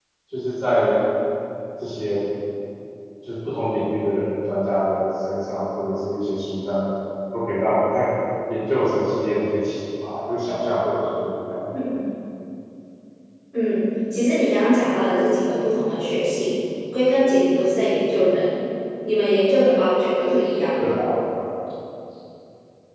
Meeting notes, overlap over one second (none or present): none